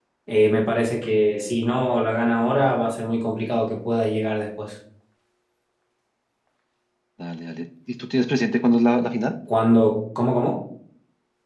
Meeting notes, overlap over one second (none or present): none